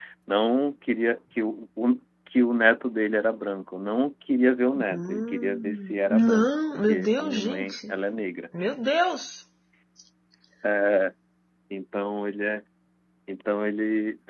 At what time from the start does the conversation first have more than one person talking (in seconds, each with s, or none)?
4.8 s